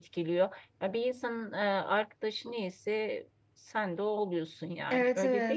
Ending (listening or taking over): taking over